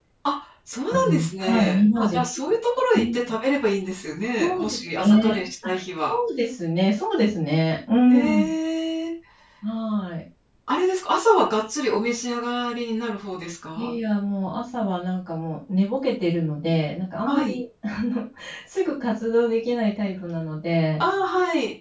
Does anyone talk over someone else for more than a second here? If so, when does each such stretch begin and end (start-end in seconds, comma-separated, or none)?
0.9-2.2, 4.4-6.1